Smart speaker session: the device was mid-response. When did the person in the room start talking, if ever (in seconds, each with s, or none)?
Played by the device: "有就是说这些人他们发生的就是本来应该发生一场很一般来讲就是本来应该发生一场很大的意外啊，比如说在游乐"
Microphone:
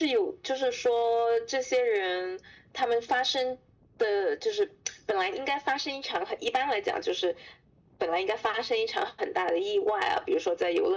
none